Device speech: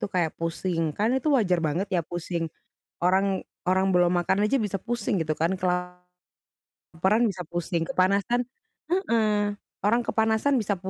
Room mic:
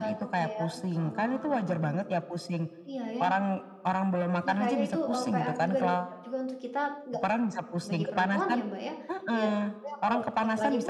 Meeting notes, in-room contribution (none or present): present